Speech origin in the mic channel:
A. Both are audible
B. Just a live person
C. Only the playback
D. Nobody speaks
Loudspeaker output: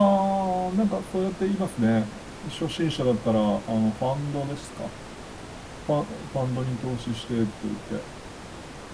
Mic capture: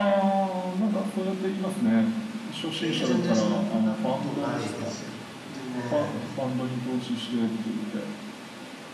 A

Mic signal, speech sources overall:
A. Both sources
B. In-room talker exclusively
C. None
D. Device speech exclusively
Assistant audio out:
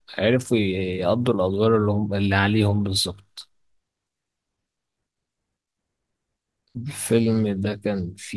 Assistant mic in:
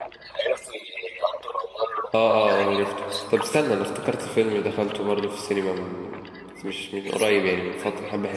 A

